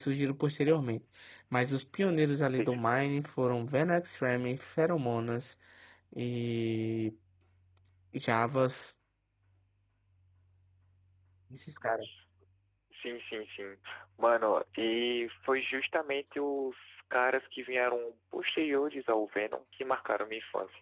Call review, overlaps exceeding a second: none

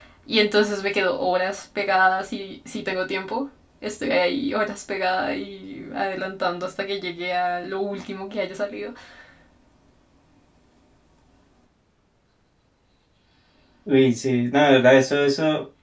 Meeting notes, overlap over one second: none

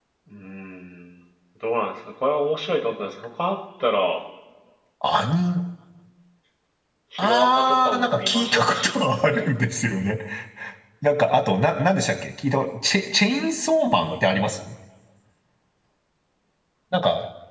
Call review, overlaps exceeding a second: present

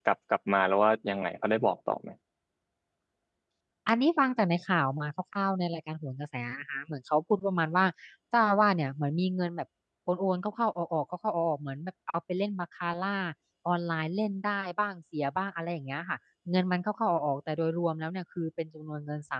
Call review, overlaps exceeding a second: none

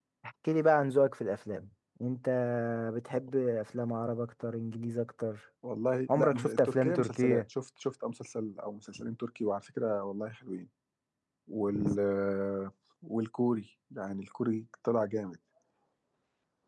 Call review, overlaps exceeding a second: present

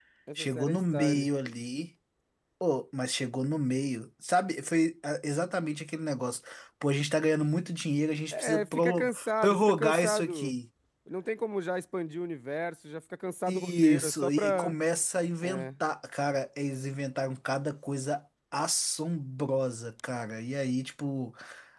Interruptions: present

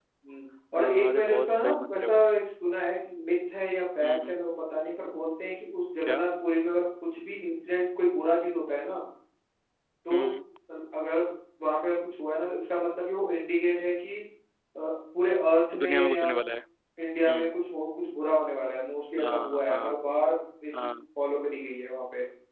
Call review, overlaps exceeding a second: present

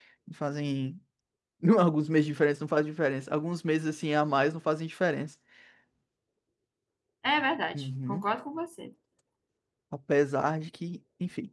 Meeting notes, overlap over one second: none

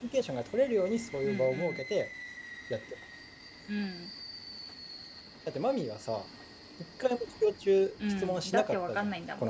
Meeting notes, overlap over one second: present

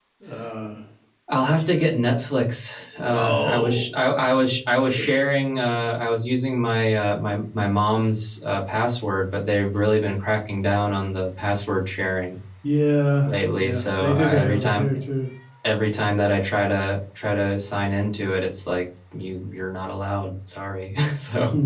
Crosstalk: present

